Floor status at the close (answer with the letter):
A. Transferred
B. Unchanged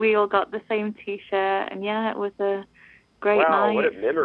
A